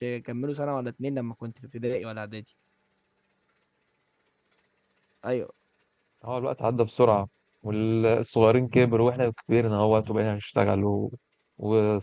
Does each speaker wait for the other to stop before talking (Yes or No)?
Yes